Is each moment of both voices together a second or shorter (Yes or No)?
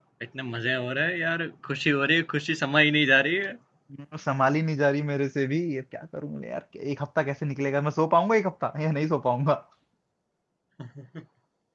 Yes